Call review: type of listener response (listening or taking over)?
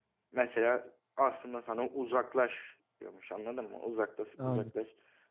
listening